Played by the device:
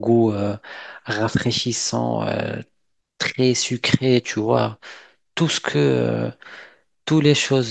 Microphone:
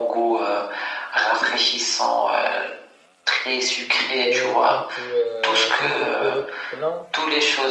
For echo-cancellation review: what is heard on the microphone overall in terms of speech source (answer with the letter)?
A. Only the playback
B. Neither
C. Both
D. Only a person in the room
C